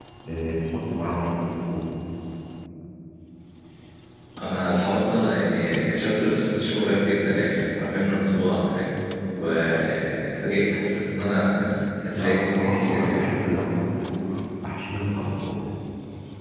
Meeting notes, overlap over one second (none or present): present